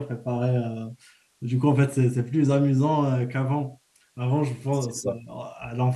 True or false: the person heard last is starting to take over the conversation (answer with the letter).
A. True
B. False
B